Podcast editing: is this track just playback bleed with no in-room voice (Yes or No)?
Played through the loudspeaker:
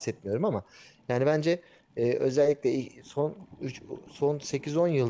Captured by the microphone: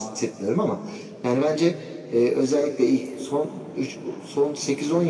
Yes